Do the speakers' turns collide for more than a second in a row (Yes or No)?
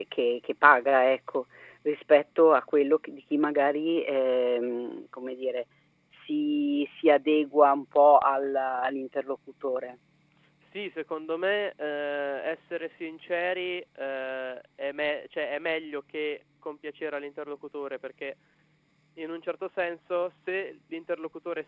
No